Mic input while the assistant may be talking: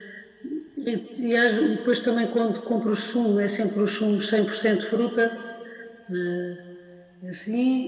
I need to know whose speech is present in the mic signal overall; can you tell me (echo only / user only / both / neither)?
echo only